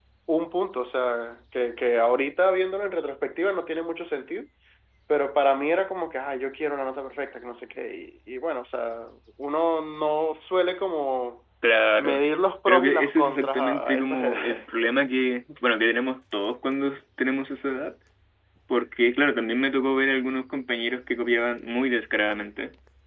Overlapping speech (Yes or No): Yes